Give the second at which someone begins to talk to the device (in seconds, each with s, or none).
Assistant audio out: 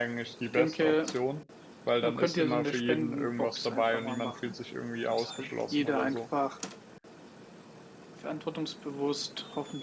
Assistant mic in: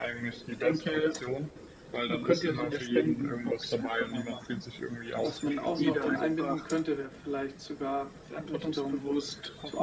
5.2 s